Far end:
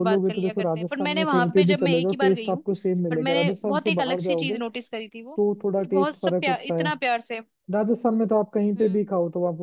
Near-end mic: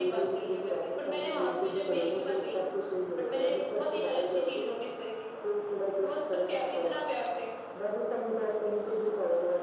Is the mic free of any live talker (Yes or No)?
Yes